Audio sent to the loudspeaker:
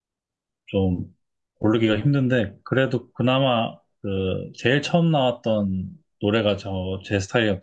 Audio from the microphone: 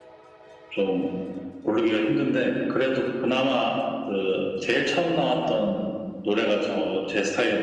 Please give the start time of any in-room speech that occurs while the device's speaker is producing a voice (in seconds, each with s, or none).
none